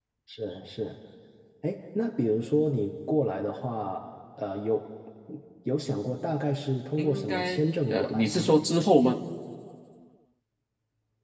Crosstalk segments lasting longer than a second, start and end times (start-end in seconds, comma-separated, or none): 7.0-8.4